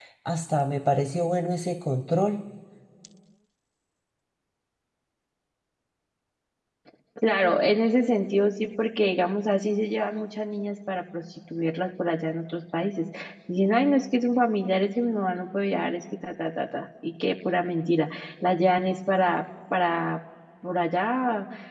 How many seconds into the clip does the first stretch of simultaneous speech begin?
none

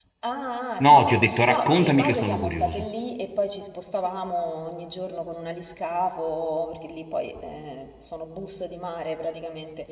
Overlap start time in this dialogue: 0.8 s

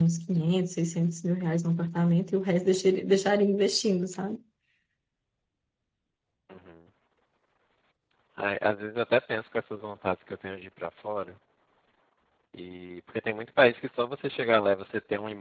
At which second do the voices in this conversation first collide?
none

